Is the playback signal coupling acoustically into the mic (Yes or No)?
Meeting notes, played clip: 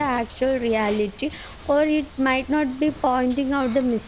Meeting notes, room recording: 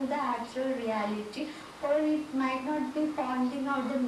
Yes